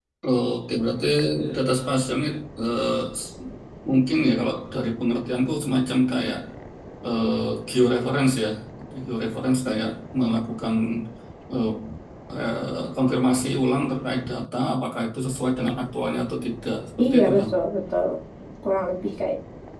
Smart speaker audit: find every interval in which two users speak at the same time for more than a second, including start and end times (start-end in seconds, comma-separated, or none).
none